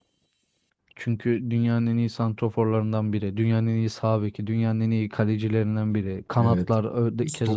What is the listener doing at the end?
taking over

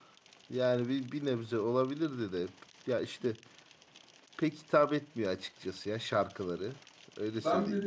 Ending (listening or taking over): taking over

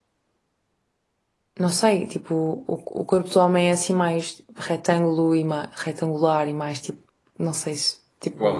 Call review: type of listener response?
taking over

